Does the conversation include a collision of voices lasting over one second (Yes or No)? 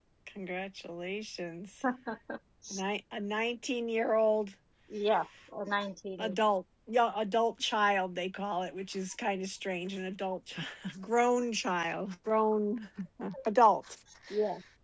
No